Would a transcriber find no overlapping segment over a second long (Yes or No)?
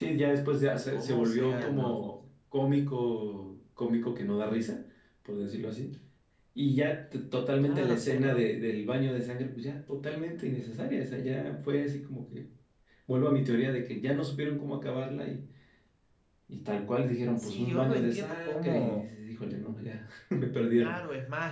No